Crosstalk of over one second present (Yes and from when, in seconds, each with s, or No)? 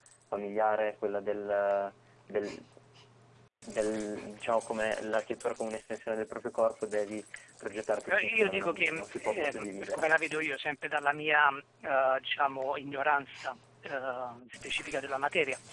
Yes, from 8.0 s